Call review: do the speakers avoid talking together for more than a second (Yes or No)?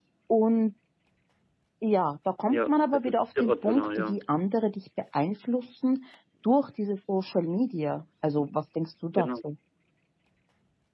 No